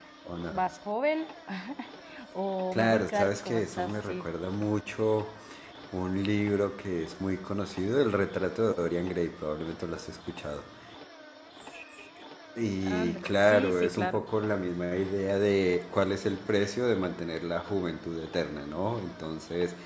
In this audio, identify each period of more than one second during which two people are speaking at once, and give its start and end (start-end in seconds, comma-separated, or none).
2.7-4.3, 13.0-14.2